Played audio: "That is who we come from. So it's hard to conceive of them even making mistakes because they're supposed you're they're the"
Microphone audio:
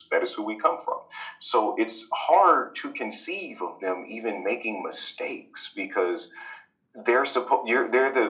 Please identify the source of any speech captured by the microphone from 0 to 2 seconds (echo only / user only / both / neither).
echo only